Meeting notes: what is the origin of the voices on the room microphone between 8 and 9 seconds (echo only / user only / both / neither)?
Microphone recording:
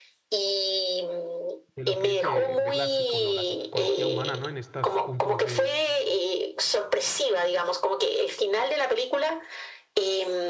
echo only